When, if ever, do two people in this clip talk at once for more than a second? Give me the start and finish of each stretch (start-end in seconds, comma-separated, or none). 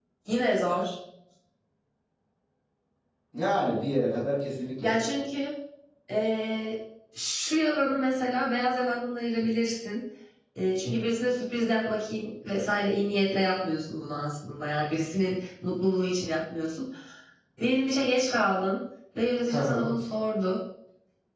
none